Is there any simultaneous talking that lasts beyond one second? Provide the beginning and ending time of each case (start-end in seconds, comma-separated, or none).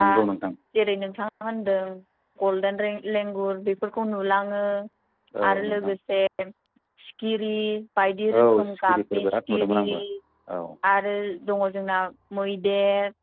8.4-9.8